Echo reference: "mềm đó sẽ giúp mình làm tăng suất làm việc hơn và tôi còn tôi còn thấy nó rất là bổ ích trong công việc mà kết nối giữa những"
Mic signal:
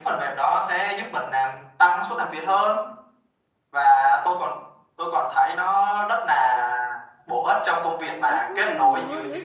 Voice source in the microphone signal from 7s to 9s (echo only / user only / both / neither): both